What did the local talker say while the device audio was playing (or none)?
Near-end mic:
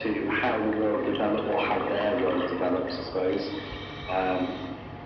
none